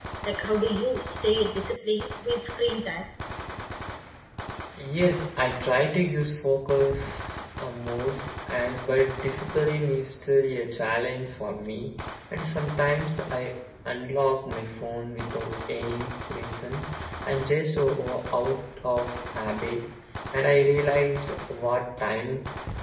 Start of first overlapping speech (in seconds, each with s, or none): none